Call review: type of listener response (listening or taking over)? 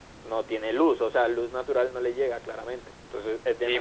taking over